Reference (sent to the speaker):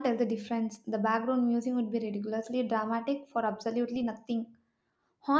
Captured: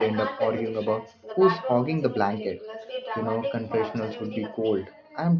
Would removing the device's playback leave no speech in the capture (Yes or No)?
No